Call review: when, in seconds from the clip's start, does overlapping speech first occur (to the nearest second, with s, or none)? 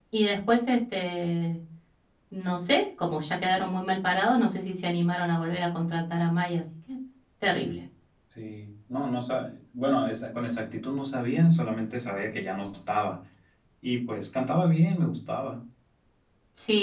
none